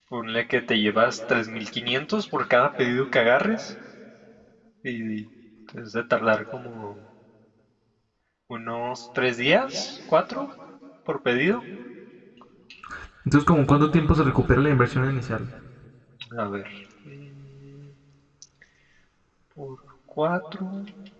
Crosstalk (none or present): none